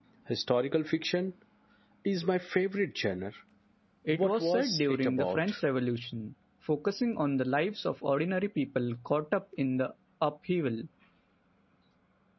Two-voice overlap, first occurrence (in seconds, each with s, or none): 4.1 s